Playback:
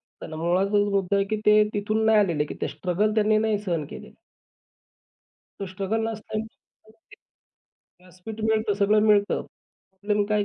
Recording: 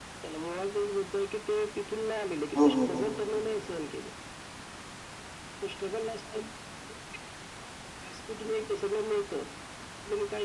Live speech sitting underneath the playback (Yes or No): No